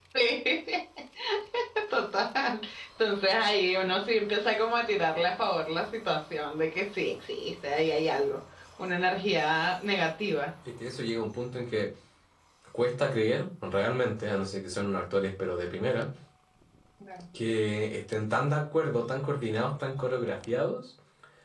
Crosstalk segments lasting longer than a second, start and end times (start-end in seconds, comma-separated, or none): none